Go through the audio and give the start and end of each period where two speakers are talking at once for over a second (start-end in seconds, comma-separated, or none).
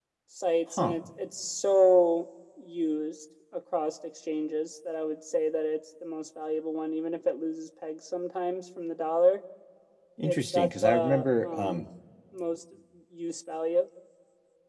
10.2-11.8